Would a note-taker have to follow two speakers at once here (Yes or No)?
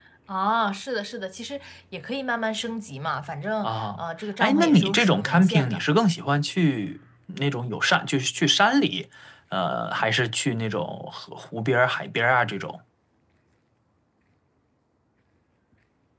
Yes